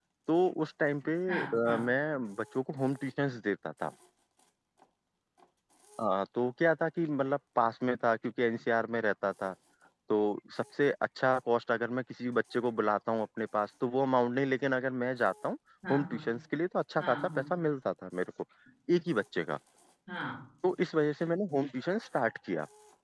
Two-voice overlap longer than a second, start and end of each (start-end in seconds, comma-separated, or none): none